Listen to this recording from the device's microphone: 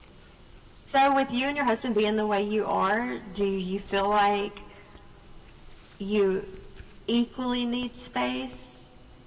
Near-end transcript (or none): none